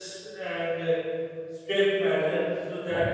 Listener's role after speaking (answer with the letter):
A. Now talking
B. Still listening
B